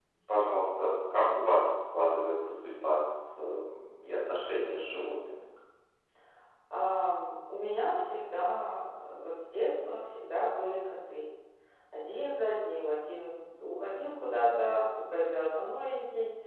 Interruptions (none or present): none